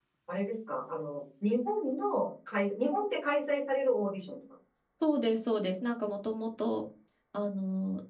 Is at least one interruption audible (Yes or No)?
No